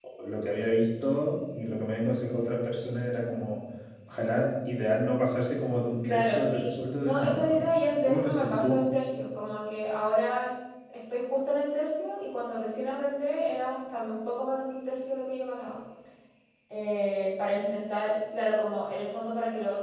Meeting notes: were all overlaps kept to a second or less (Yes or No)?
No